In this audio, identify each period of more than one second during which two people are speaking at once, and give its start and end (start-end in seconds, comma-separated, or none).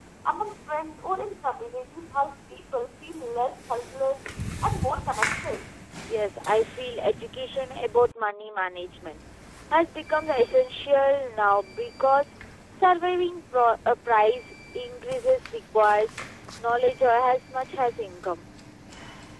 none